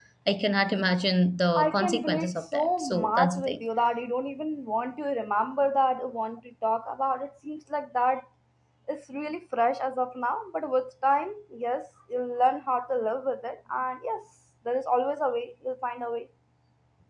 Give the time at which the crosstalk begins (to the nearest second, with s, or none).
2 s